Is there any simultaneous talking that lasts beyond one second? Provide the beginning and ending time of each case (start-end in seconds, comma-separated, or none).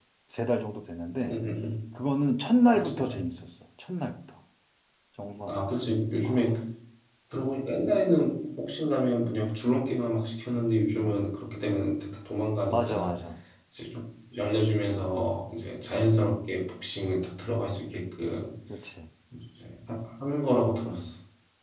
none